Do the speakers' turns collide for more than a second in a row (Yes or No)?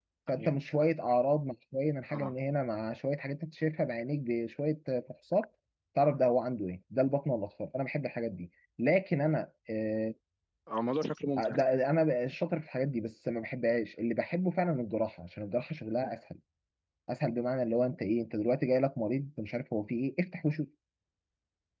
No